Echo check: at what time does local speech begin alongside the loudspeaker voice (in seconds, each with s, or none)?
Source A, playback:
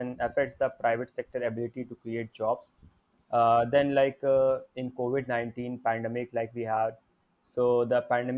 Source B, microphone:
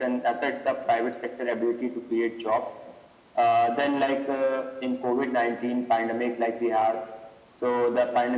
none